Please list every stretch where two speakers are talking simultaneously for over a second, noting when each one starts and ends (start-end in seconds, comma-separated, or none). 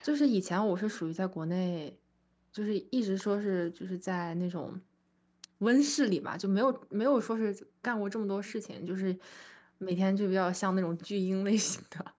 none